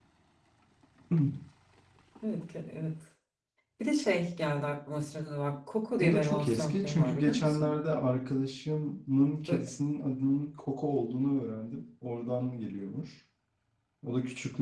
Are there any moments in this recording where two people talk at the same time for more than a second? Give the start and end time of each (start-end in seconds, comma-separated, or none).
6.0-7.7